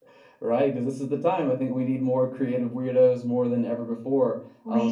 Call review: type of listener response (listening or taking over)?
listening